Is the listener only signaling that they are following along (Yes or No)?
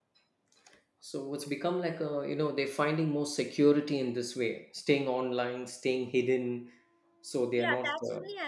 No